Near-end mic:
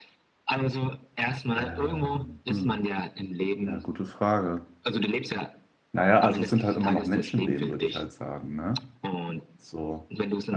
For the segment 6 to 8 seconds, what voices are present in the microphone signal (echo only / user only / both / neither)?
both